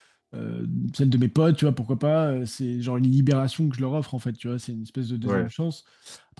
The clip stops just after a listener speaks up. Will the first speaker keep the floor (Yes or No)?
Yes